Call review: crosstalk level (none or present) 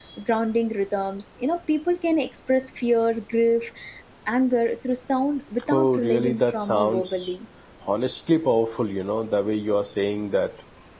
present